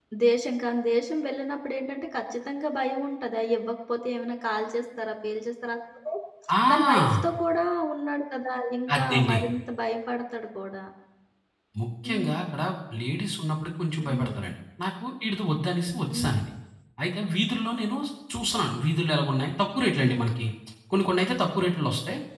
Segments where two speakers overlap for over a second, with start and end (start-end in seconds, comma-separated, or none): none